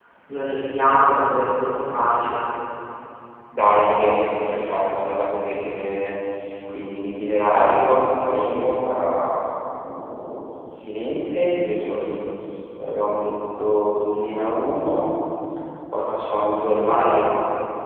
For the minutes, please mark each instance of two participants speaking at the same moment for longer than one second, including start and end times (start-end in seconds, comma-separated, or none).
none